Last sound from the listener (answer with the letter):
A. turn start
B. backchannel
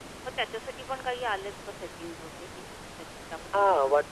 A